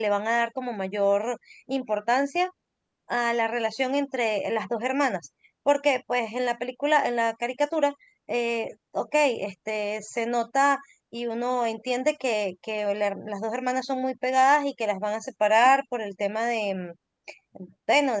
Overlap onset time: none

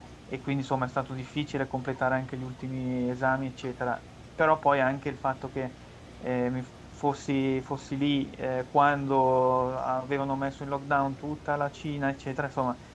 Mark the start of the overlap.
none

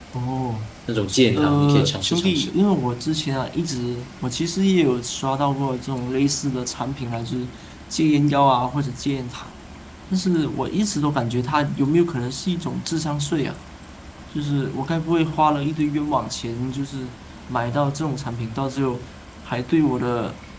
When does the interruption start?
1.3 s

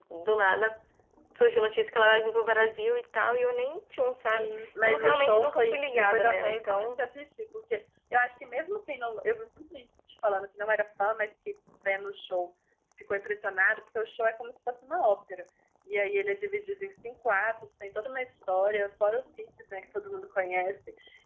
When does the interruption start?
4.3 s

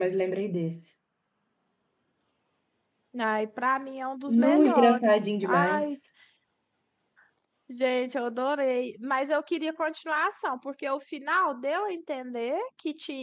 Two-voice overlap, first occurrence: 4.3 s

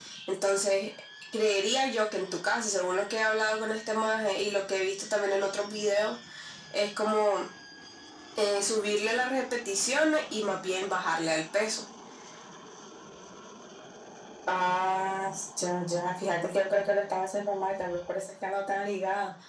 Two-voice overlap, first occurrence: none

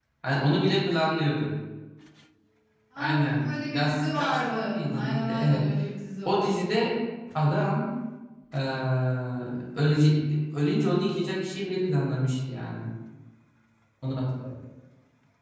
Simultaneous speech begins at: 3.0 s

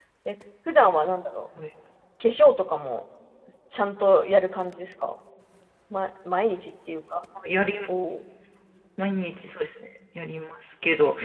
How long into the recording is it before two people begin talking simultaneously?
none

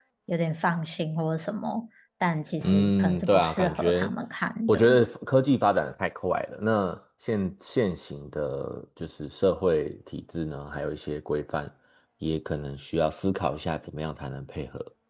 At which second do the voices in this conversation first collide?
2.6 s

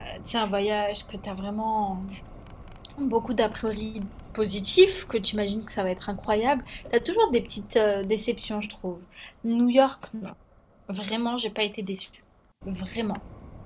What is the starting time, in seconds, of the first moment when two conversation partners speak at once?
none

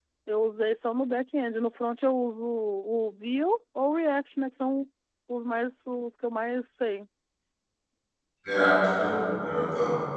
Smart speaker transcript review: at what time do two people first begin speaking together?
none

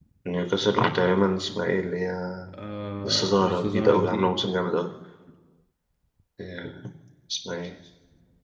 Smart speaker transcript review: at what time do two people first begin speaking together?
3.0 s

